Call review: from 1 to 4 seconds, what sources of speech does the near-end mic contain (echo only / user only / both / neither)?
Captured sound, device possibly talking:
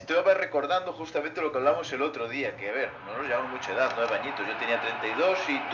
echo only